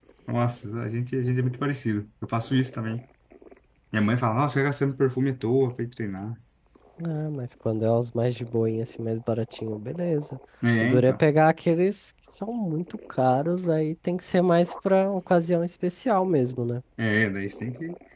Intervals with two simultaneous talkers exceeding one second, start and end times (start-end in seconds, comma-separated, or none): none